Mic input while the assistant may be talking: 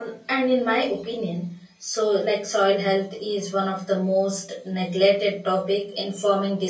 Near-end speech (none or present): present